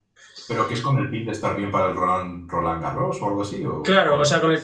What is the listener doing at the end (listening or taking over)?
taking over